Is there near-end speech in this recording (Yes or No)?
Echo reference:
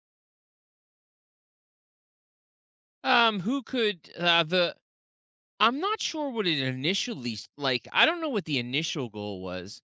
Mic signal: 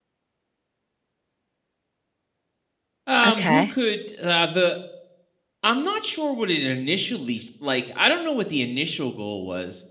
Yes